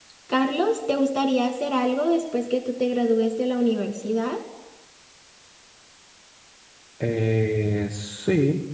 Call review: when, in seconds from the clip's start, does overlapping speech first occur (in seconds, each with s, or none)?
none